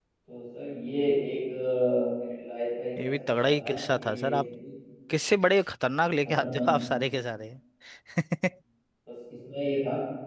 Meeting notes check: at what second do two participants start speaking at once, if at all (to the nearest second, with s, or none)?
3 s